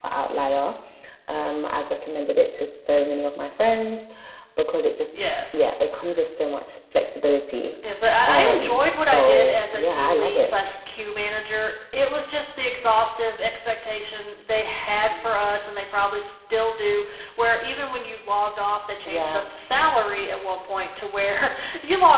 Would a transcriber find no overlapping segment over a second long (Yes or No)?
No